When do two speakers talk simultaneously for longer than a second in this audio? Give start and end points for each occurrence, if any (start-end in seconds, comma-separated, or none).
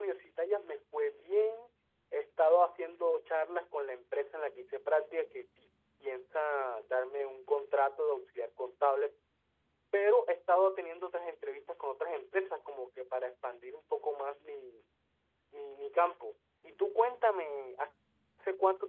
none